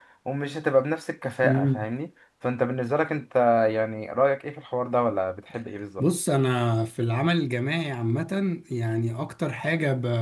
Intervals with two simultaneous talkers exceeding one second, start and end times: none

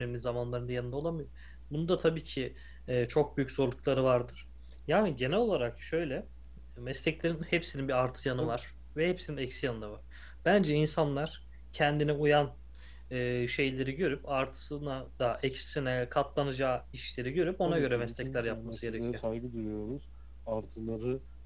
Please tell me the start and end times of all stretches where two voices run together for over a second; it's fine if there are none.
17.6-19.0

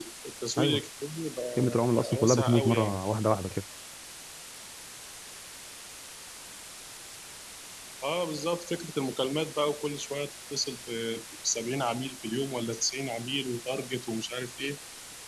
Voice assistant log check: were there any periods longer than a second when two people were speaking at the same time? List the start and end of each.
1.6-3.0

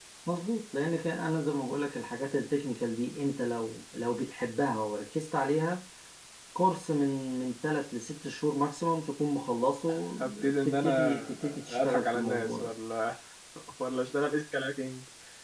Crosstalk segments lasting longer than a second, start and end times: 9.9-12.7

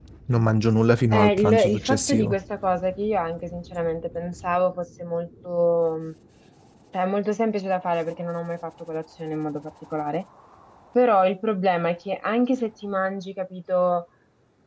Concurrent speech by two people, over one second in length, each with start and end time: 1.1-2.4

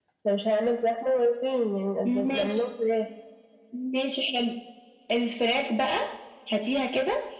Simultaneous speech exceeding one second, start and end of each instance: none

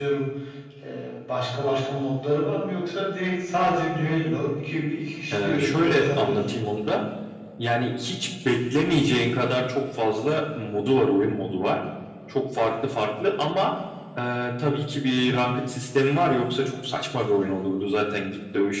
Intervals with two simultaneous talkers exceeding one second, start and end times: 5.3-6.6

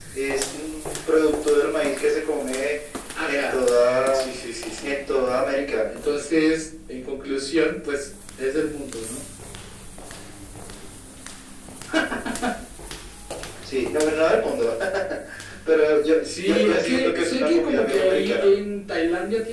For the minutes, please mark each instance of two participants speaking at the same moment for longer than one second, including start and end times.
16.2-18.5

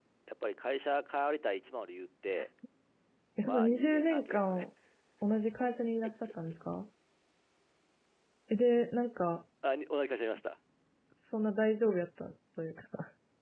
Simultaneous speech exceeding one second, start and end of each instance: 3.4-4.7

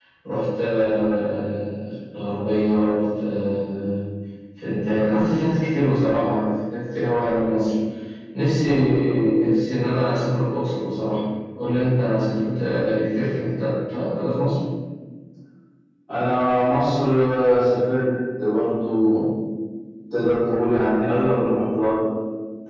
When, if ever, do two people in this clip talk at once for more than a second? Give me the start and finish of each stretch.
none

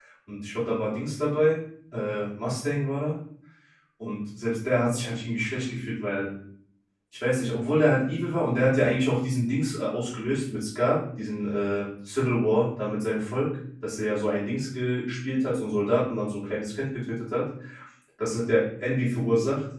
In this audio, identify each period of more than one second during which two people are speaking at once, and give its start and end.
none

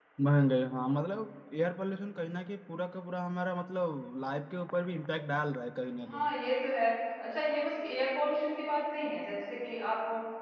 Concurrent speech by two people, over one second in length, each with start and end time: none

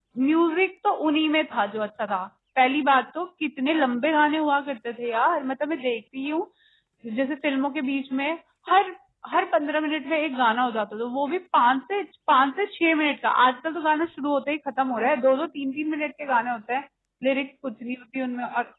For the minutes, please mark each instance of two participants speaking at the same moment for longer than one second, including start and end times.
none

